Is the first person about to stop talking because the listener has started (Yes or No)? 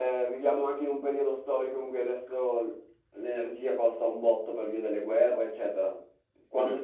No